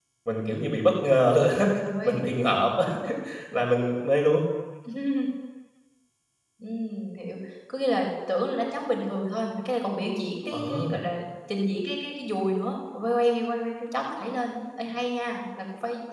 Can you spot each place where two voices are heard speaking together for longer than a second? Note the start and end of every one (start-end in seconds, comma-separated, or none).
none